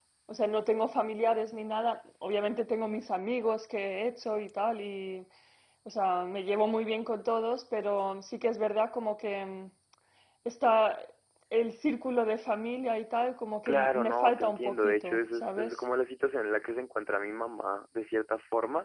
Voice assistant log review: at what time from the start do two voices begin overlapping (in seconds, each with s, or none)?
13.7 s